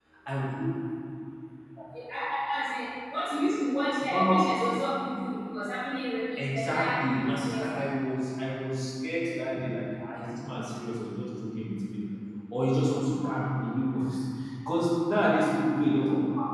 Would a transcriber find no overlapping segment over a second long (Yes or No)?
No